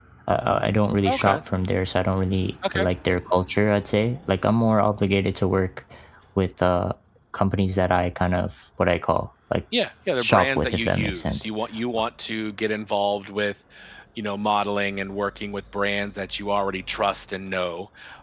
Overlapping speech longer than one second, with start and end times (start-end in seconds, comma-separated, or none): 10.2-11.5